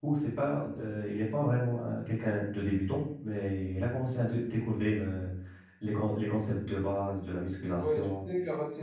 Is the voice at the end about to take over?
Yes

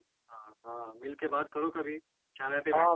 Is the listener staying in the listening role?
No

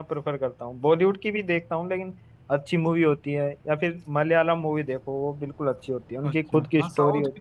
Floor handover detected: Yes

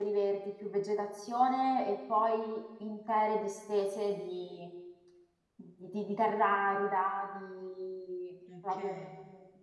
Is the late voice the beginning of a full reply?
No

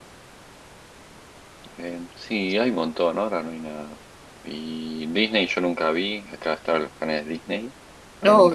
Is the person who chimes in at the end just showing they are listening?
No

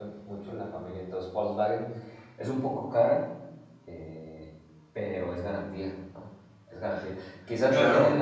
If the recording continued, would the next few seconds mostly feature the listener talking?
No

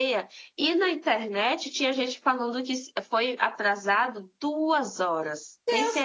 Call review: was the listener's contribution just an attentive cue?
No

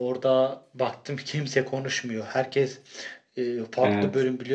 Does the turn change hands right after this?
No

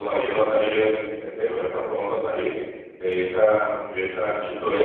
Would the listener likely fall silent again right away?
Yes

